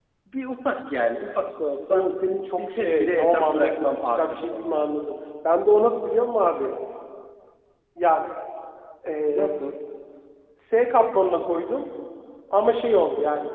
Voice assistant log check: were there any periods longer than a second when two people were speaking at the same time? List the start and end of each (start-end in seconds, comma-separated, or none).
2.6-4.9